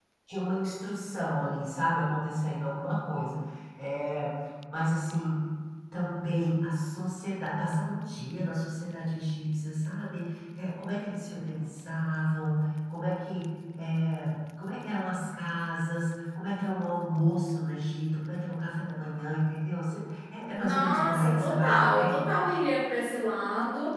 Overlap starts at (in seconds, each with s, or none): 20.6 s